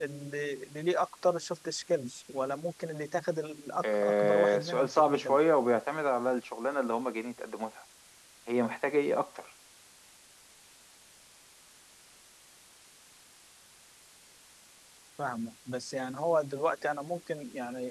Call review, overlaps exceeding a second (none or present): present